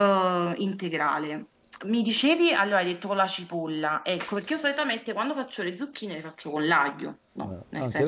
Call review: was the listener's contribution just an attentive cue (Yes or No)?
No